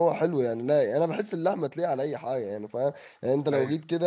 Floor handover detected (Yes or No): No